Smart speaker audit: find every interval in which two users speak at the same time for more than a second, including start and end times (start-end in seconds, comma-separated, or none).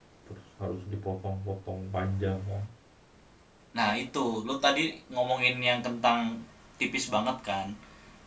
none